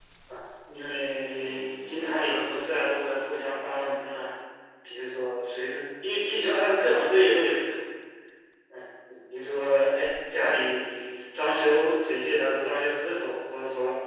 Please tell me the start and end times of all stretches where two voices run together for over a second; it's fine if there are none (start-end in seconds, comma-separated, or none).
1.4-2.7